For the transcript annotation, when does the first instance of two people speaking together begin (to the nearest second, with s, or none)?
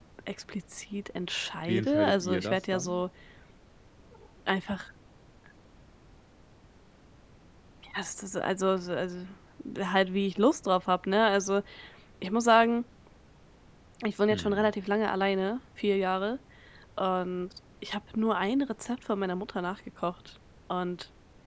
2 s